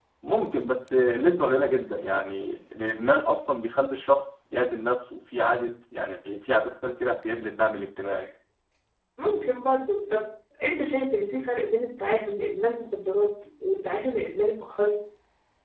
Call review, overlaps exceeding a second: none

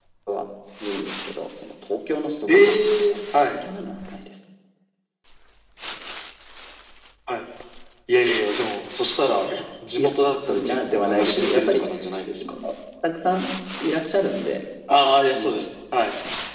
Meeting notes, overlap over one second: present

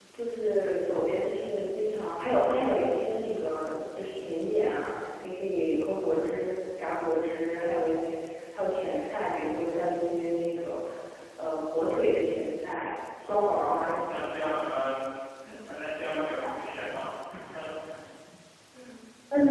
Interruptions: present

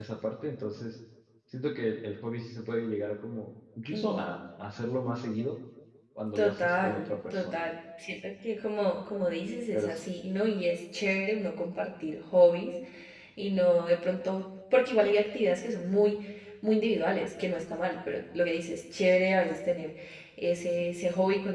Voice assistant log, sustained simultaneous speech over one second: present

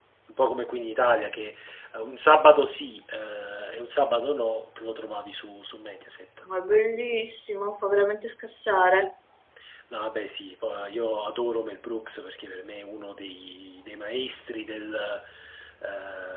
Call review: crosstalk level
none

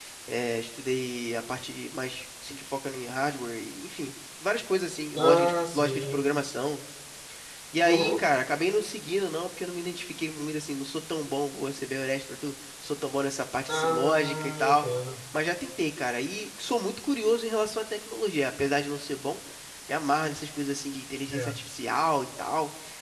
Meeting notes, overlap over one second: present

